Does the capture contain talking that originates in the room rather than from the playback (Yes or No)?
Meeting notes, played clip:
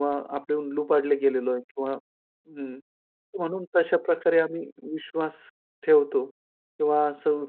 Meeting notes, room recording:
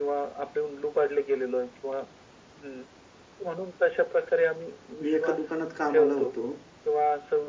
Yes